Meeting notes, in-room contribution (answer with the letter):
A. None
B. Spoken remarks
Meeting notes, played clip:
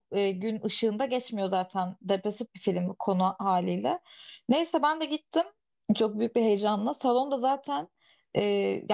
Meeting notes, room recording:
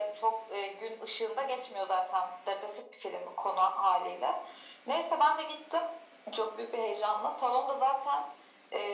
A